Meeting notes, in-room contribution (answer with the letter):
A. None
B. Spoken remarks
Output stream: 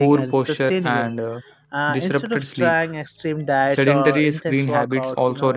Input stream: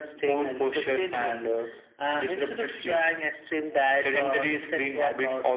A